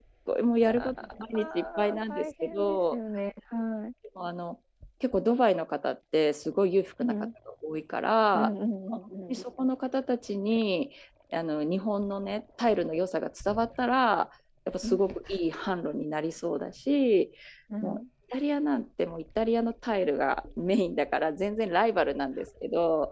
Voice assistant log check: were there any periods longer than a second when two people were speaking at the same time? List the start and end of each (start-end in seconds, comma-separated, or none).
1.3-3.0